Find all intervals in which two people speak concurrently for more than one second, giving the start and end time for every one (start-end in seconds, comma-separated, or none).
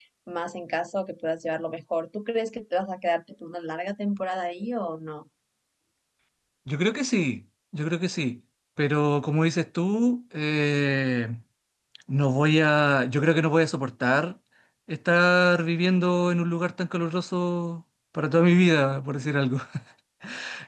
none